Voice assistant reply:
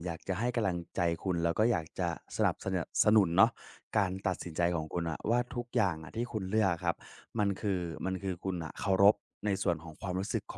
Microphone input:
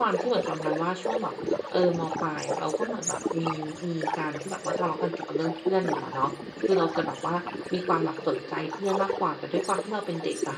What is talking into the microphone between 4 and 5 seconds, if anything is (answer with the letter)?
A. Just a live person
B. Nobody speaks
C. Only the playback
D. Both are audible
D